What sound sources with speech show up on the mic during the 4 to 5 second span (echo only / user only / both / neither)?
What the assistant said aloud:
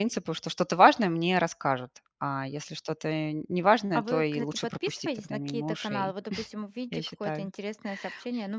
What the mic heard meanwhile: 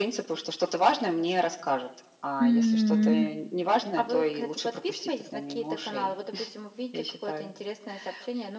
echo only